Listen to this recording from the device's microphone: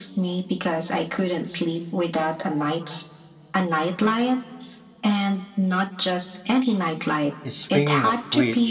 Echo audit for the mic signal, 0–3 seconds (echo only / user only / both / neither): echo only